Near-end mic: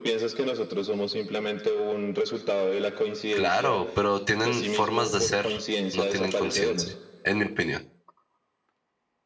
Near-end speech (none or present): present